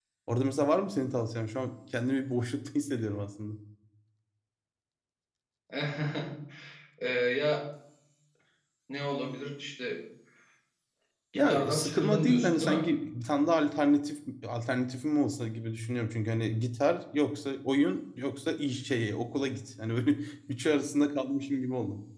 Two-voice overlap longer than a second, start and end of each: 11.3-12.9

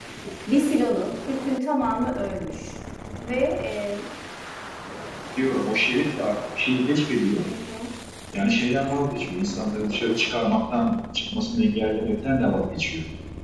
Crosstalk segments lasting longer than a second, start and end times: none

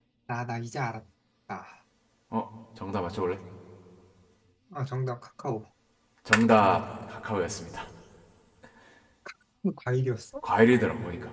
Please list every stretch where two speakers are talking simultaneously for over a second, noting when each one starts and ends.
none

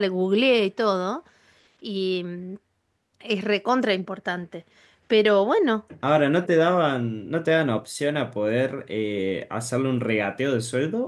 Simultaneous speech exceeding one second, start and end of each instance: none

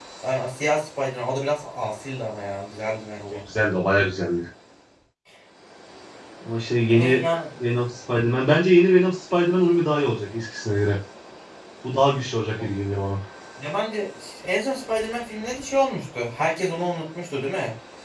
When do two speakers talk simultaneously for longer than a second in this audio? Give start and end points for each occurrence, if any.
none

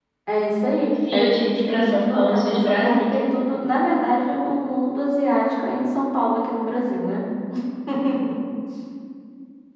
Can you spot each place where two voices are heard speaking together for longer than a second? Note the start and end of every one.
1.1-3.2

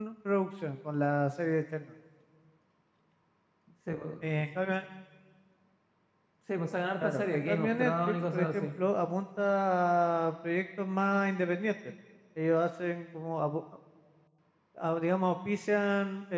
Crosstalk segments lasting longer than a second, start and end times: 7.0-8.7

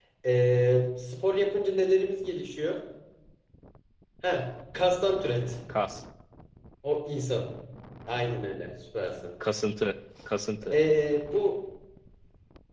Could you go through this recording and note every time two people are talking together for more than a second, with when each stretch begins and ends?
none

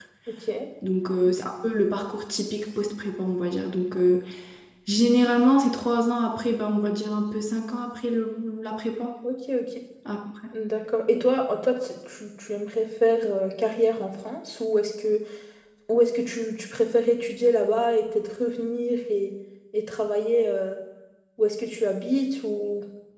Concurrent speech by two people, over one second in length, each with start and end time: none

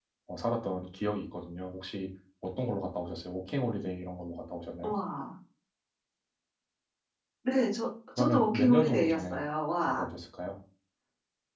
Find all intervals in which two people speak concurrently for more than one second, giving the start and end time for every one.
8.2-9.4

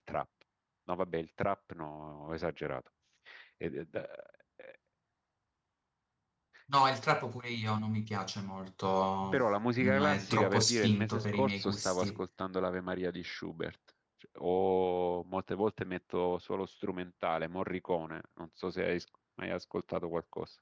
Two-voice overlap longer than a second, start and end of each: 9.8-12.2

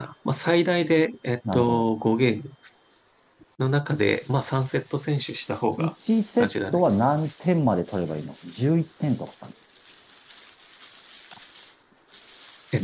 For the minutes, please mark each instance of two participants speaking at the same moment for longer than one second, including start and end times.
none

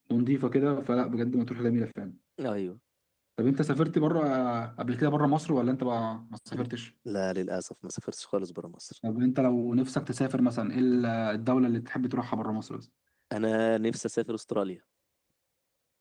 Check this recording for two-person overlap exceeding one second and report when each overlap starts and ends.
none

